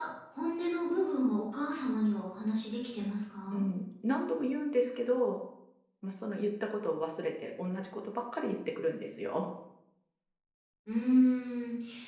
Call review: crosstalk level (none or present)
none